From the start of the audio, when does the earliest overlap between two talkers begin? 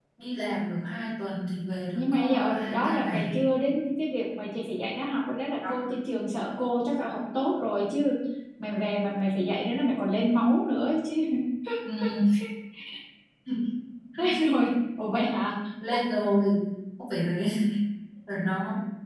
1.9 s

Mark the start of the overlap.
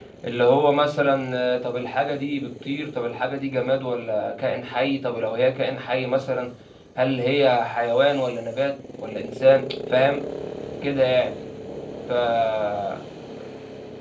none

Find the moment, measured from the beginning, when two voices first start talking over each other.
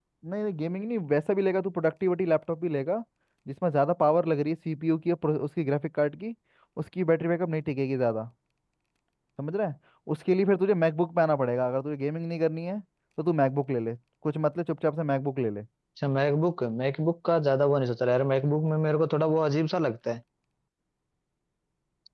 none

